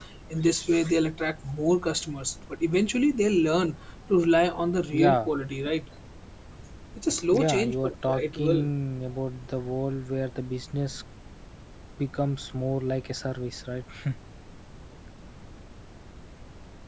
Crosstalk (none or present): present